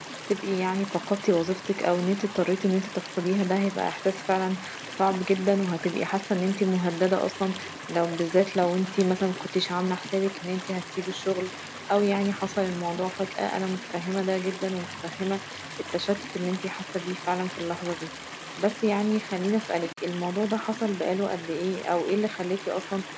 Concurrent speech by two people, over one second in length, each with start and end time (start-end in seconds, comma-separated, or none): none